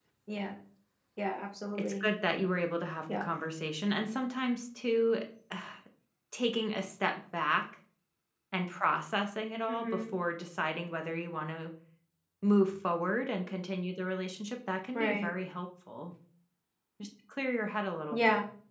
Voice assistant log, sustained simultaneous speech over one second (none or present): none